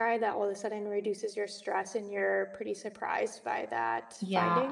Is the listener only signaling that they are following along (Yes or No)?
No